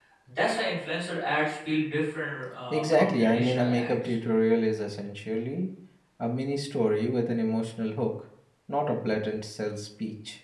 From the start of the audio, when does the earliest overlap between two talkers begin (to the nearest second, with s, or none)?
3 s